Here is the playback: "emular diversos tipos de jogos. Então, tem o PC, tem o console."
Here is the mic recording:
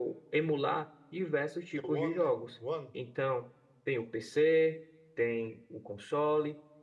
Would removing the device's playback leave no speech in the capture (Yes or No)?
No